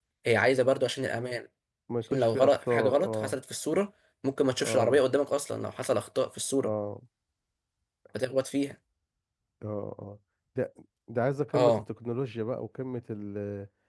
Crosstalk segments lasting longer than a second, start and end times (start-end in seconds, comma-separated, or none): 2.1-3.4